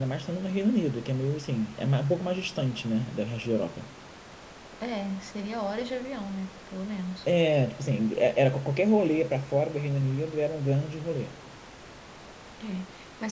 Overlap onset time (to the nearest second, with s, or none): none